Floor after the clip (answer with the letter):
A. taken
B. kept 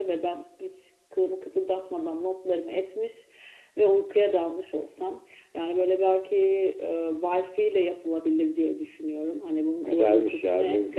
A